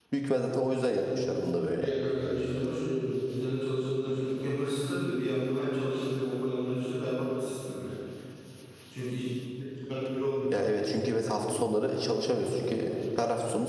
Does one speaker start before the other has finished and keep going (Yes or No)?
No